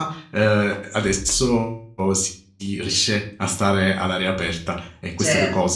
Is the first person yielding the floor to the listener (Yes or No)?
No